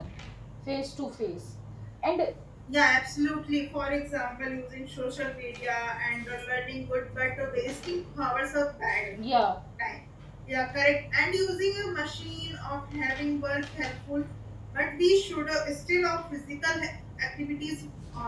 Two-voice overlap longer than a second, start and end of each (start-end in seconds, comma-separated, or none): none